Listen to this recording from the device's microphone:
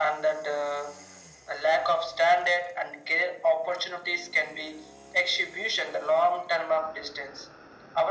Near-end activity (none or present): none